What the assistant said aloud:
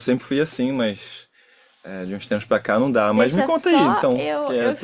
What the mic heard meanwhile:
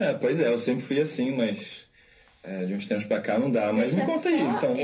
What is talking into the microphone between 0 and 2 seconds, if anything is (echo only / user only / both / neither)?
echo only